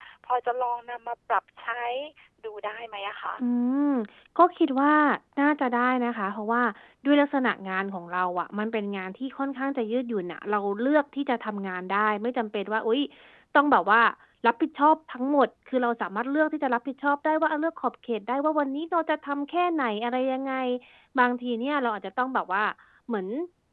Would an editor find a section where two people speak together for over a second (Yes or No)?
No